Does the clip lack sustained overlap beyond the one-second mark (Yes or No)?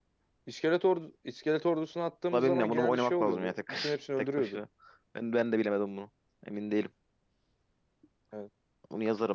No